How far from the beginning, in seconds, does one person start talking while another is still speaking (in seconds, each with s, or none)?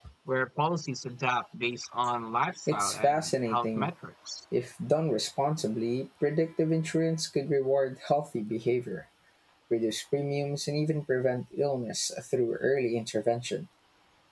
2.7 s